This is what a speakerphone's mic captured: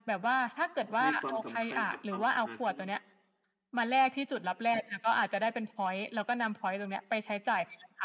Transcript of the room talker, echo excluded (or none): ห ให้ความสำคัญกับความสะอาด อืม